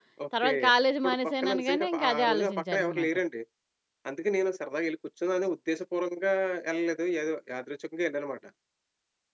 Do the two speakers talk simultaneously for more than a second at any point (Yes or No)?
Yes